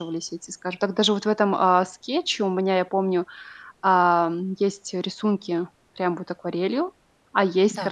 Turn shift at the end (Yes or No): No